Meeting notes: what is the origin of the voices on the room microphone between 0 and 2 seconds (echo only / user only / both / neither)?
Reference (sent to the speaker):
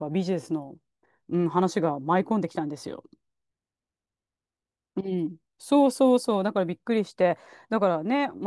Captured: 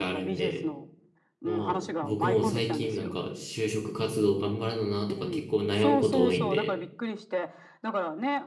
both